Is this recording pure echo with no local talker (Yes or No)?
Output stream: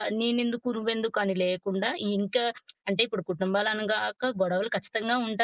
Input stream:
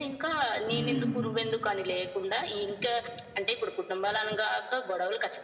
No